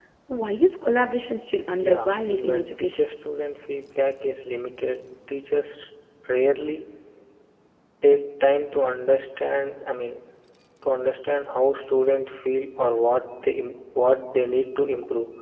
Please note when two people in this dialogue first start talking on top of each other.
1.8 s

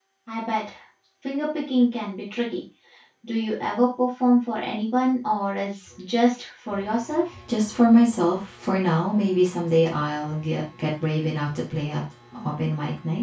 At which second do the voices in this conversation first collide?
none

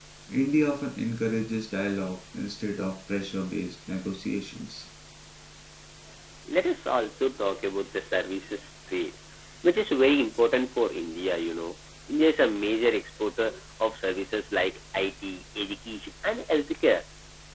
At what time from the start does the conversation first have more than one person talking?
none

